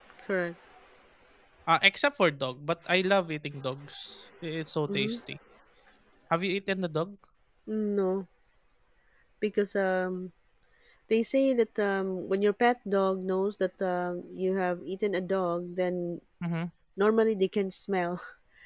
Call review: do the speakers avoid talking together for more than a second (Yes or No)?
Yes